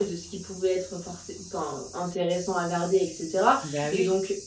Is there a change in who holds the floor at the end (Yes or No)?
No